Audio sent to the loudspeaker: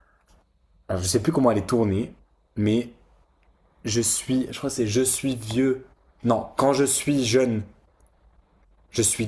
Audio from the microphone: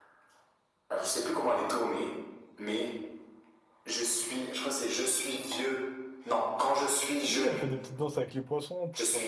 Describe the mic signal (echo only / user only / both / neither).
both